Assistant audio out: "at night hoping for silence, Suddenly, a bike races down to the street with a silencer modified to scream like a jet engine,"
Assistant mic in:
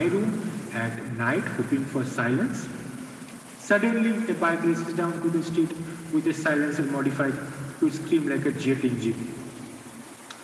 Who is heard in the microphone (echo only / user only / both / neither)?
echo only